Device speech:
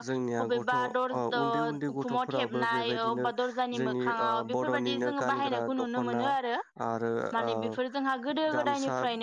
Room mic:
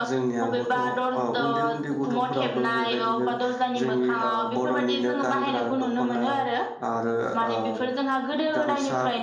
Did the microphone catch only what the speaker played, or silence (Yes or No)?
Yes